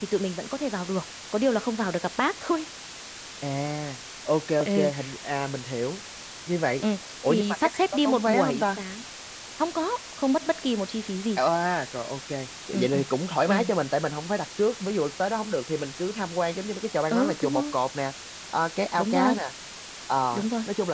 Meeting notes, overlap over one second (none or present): present